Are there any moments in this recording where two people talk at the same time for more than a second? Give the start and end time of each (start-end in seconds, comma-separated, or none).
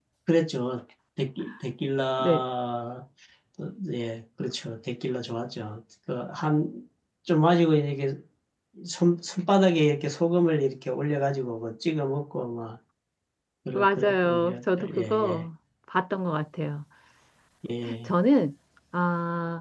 13.7-15.4